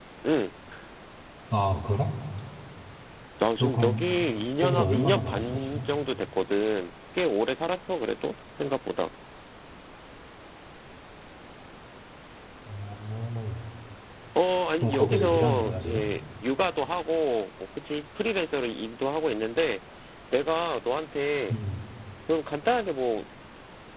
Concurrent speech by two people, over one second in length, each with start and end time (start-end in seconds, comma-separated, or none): 4.6-5.9, 14.8-16.0